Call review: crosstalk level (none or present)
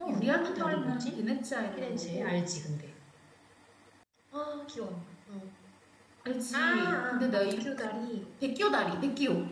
present